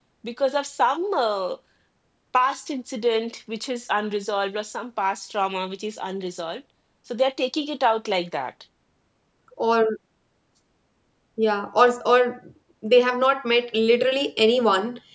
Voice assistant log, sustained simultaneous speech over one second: none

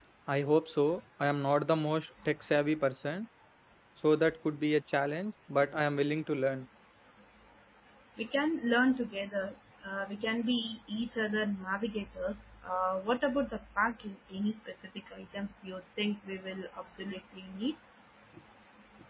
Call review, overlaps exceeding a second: none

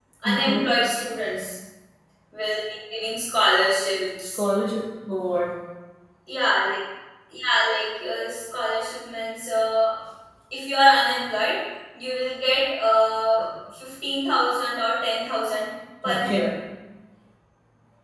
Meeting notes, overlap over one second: none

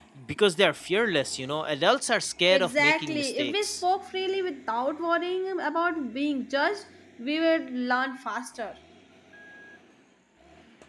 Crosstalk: present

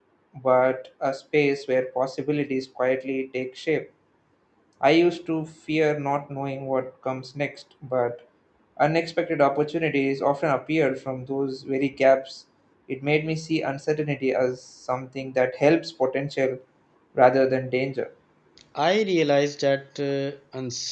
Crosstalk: none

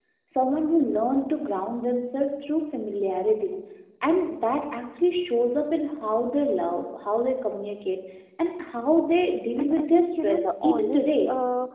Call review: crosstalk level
present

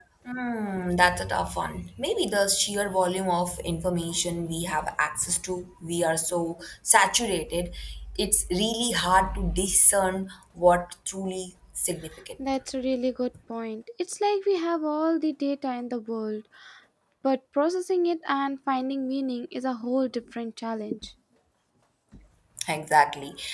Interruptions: none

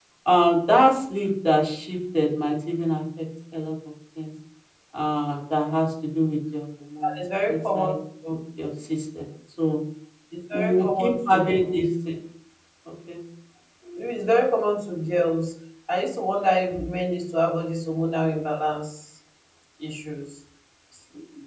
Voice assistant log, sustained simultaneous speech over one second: present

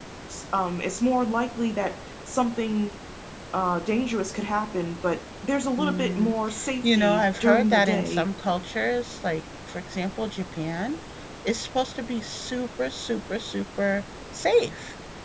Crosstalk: present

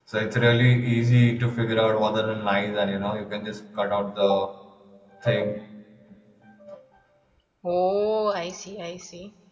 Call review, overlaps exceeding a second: none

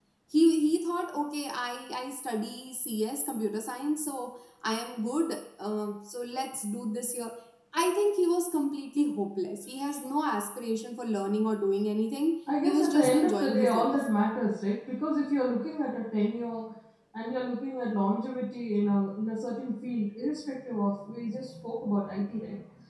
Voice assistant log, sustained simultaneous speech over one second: present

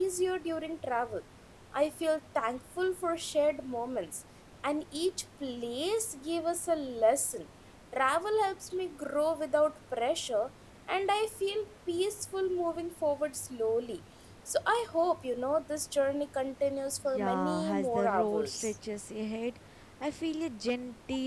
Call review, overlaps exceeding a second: present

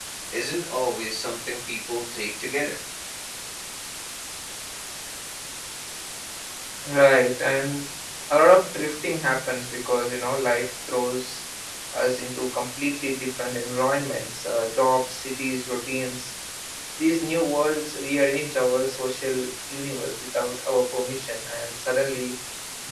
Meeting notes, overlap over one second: none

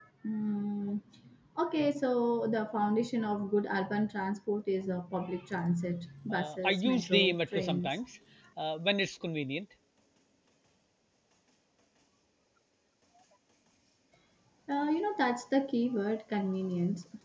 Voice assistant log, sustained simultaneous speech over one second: present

